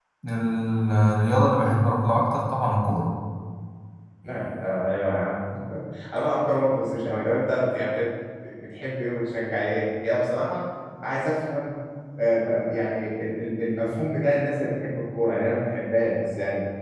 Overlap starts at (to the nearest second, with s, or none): none